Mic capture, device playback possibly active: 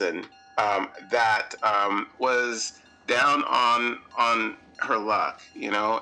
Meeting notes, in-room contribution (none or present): none